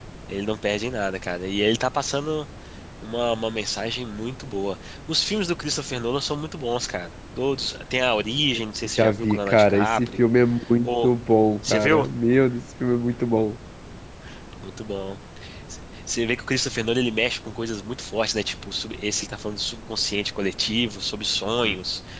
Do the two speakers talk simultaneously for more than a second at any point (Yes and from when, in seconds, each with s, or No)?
Yes, from 8.9 s